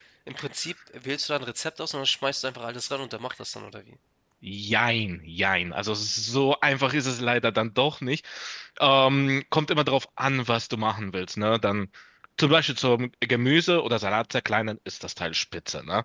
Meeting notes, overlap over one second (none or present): none